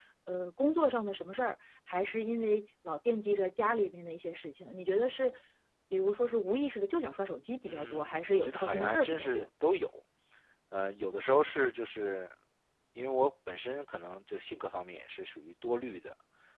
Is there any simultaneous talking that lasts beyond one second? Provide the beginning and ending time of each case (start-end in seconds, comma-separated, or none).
7.6-9.5